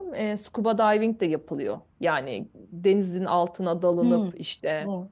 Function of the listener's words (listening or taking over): taking over